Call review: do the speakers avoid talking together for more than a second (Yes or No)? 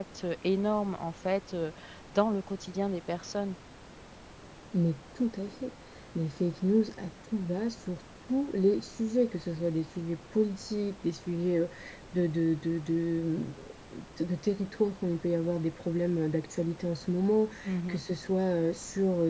Yes